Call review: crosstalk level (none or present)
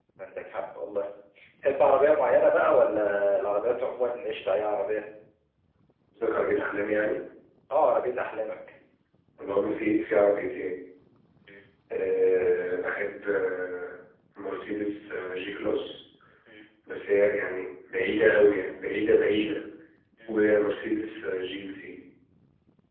none